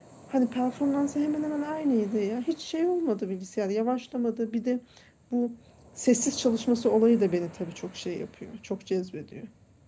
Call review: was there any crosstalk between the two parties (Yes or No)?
No